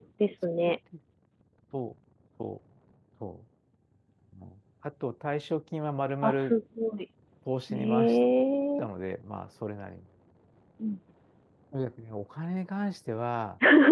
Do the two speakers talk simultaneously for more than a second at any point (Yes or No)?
No